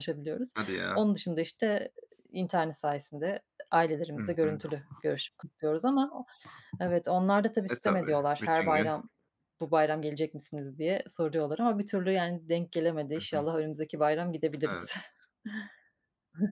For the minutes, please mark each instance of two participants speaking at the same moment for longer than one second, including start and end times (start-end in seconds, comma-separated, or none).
7.7-8.9